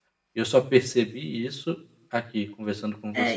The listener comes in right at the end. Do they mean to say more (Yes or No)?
Yes